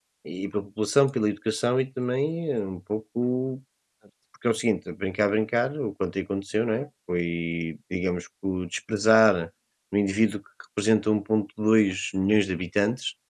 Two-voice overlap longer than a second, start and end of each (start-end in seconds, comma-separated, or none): none